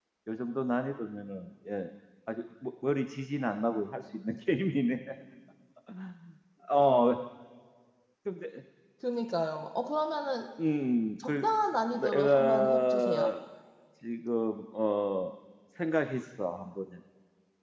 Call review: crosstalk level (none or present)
present